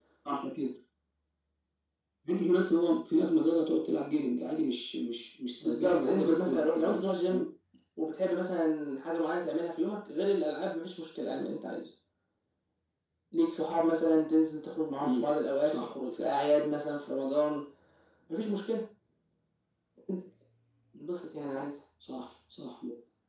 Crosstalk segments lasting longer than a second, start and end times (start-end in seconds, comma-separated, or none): 5.6-7.4